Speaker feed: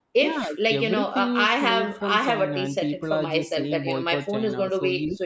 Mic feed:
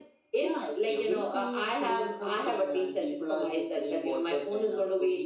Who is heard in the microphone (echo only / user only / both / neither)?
echo only